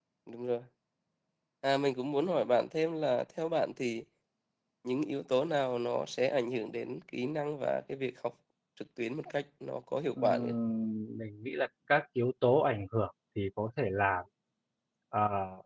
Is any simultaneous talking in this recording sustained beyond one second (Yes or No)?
No